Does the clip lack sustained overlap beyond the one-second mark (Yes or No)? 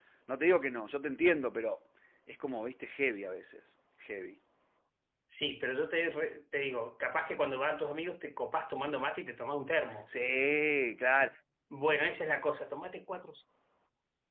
Yes